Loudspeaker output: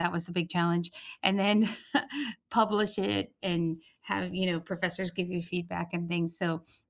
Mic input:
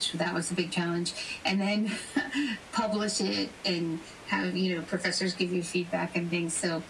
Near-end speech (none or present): none